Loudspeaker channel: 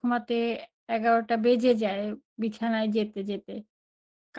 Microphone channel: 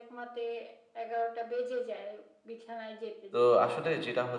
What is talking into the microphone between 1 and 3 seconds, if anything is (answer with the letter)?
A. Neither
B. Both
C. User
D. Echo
D